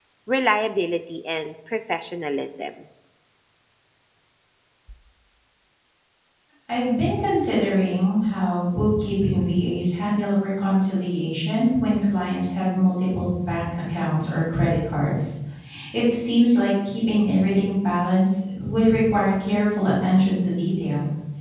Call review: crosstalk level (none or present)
none